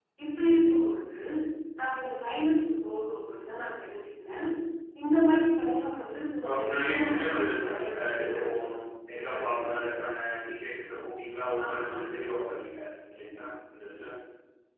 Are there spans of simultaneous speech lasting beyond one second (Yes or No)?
Yes